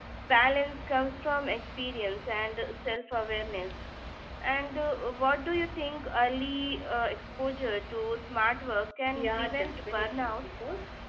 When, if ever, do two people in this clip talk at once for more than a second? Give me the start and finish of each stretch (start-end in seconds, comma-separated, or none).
9.2-10.4